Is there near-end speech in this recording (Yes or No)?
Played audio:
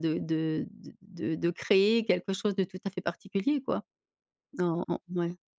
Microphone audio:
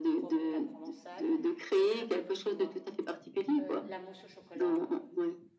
Yes